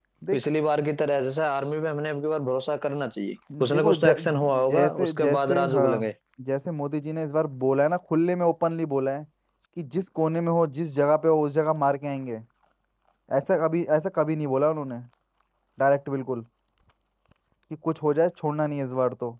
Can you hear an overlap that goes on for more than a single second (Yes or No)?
Yes